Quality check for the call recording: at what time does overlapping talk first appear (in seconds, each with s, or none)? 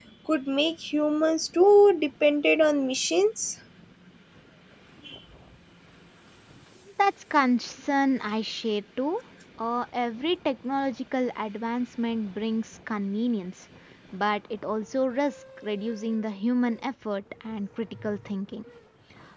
none